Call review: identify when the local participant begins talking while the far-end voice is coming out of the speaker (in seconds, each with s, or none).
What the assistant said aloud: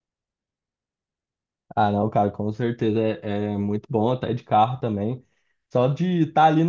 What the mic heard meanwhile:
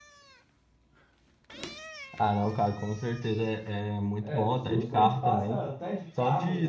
4.2 s